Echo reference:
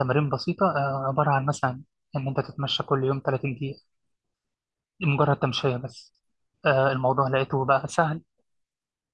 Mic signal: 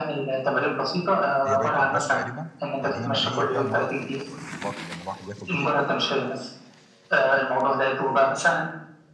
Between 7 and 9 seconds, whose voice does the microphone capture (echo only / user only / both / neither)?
echo only